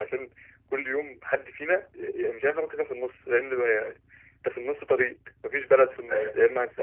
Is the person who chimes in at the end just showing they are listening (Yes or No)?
Yes